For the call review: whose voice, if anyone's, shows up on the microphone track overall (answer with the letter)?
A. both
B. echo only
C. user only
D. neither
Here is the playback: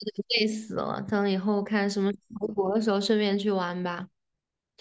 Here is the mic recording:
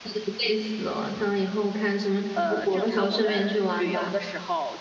A